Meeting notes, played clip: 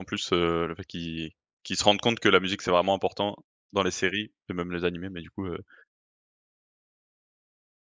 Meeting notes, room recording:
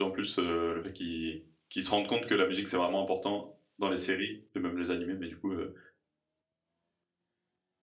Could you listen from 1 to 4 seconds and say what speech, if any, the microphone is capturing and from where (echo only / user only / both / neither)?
echo only